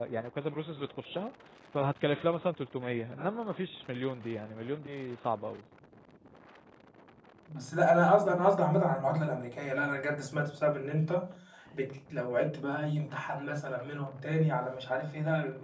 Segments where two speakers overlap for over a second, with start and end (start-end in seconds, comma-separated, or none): none